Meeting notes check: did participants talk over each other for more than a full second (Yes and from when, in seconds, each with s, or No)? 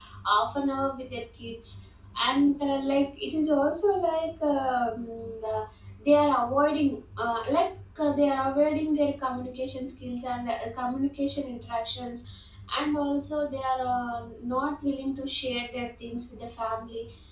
No